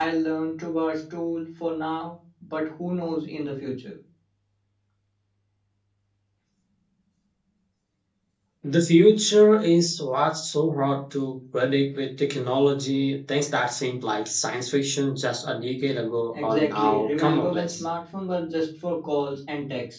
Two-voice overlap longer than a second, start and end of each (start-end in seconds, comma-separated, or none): 16.3-17.8